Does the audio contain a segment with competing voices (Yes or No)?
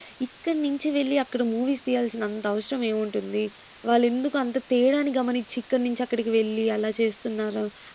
No